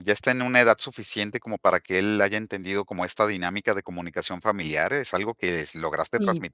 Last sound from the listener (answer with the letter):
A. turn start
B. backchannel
B